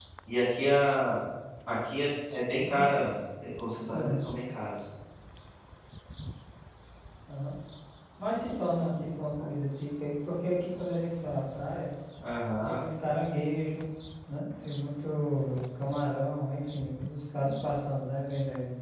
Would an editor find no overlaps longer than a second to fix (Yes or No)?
Yes